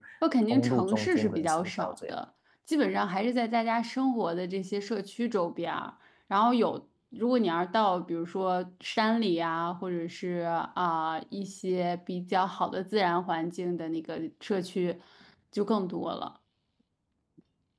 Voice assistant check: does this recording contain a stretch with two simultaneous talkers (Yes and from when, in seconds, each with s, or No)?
Yes, from 0.5 s